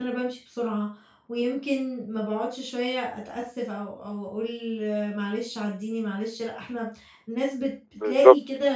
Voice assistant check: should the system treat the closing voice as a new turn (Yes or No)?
No